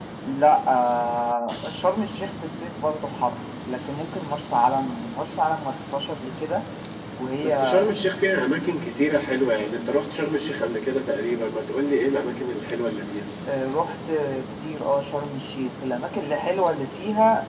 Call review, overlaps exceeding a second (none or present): none